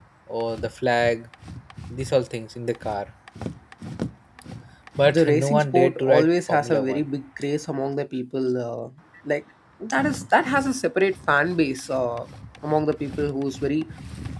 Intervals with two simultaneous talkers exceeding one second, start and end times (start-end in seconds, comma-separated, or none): 5.1-7.1